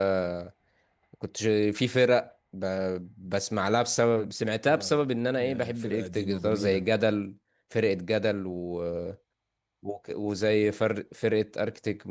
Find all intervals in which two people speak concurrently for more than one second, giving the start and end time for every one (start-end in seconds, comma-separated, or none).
5.4-6.8